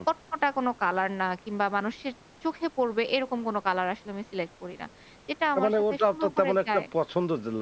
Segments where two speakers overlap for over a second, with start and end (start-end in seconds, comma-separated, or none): 5.5-6.8